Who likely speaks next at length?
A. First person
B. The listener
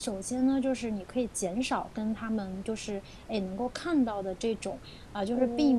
A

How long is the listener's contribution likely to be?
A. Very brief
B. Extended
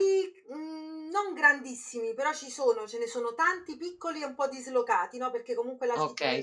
B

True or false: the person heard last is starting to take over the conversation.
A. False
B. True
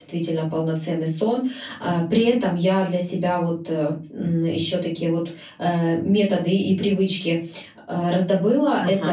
A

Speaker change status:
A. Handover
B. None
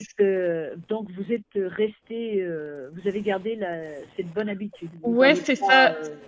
A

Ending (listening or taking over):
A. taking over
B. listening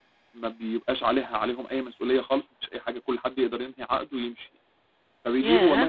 B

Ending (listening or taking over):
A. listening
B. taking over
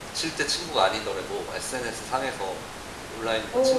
B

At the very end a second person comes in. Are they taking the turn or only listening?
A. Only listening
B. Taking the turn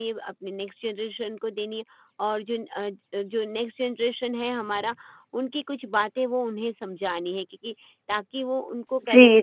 B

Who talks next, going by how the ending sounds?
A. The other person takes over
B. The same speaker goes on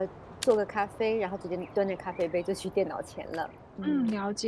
A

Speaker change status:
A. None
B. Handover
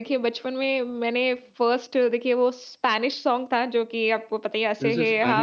A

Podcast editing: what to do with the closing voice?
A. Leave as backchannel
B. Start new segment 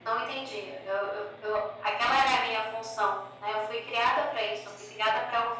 A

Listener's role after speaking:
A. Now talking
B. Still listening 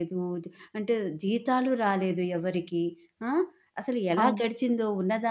B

